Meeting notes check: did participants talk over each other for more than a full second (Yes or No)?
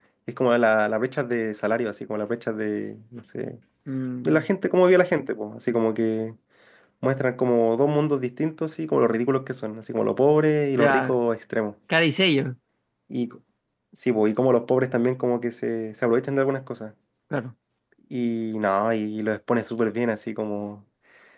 No